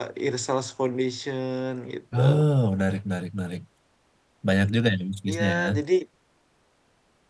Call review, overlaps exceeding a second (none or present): none